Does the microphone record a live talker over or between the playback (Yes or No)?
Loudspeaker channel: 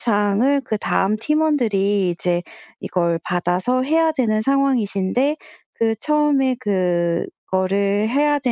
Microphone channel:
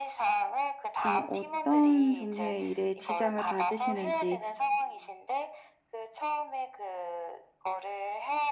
Yes